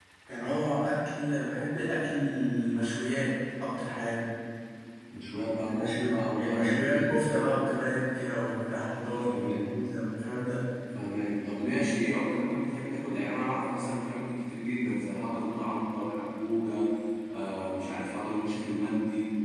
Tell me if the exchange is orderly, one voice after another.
No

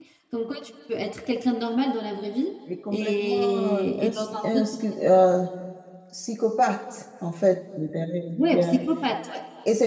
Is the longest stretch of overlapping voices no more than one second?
No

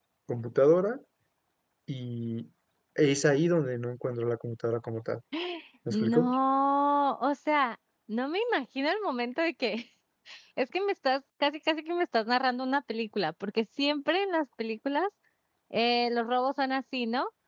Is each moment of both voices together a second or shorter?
Yes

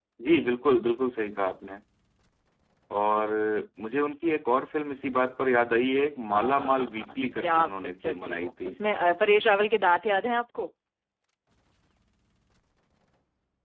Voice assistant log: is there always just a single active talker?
No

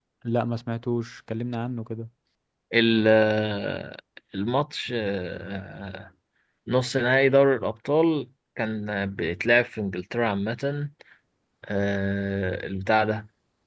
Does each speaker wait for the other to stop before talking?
Yes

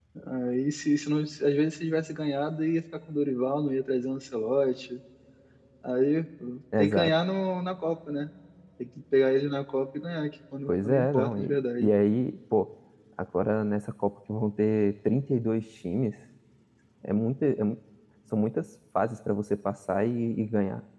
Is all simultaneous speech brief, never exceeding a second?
No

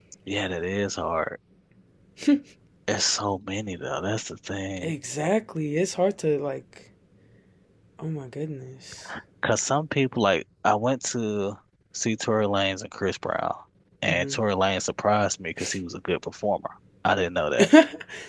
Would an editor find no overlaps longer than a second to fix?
Yes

